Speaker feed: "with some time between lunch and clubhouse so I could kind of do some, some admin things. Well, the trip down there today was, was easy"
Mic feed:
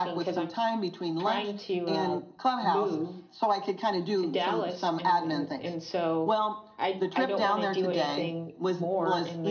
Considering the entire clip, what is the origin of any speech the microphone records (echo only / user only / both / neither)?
both